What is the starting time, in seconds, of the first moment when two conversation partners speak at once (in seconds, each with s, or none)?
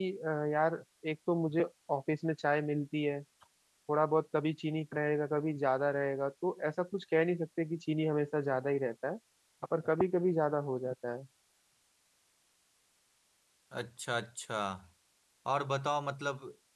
none